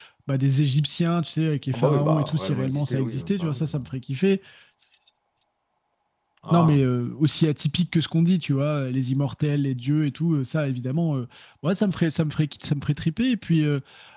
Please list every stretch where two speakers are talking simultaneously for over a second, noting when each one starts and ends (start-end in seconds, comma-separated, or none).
1.7-3.7